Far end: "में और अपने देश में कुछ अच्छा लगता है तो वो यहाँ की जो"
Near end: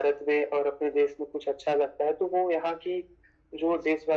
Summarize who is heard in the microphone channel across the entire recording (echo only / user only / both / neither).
echo only